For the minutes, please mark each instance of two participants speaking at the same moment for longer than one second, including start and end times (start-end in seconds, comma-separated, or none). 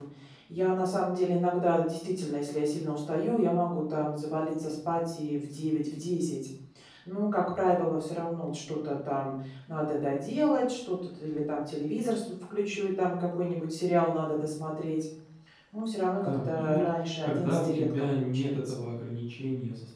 16.2-18.8